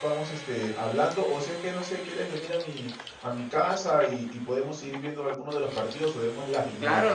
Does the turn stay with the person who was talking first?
No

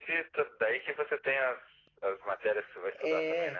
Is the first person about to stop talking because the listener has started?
Yes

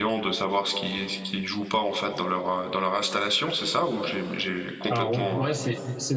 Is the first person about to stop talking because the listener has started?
Yes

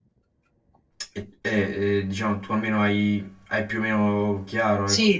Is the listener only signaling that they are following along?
No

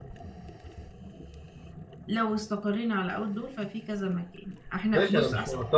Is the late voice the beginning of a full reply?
Yes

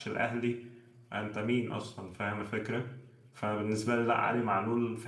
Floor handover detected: No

